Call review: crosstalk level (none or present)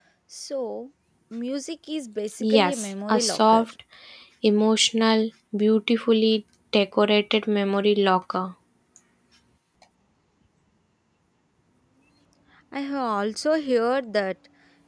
present